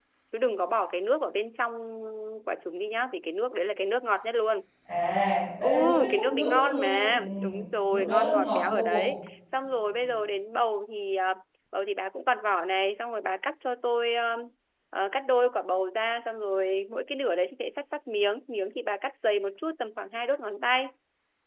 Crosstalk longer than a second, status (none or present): present